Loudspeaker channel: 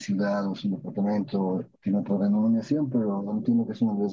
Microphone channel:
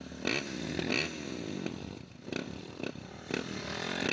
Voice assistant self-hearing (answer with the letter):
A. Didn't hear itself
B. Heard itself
A